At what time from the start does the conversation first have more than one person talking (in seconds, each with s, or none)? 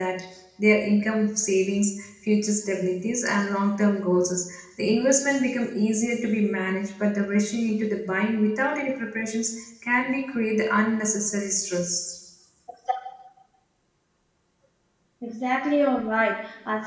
none